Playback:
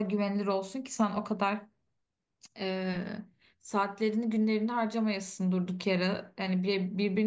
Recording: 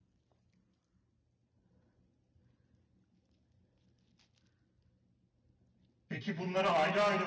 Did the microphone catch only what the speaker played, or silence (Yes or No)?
No